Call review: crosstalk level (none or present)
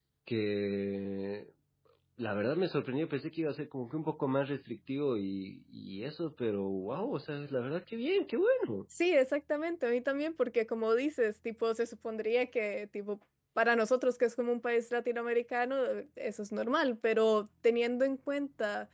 none